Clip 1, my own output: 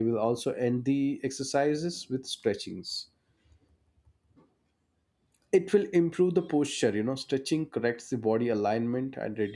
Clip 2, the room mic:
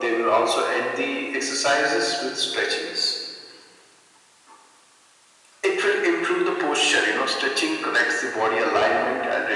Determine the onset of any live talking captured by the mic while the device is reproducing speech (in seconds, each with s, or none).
none